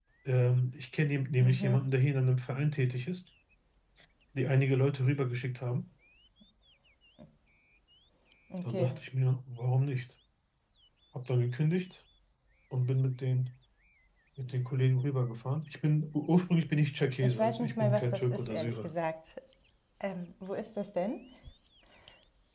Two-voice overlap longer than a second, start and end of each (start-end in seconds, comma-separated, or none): 17.2-18.9